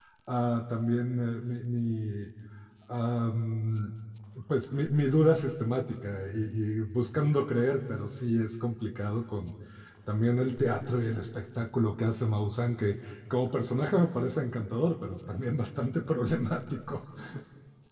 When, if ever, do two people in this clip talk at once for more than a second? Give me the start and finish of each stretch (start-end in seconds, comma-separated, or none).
none